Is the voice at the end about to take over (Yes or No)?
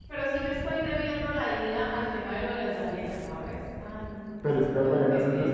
Yes